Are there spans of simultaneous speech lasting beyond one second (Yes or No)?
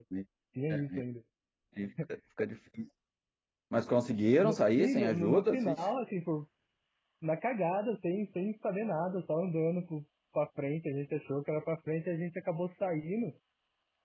Yes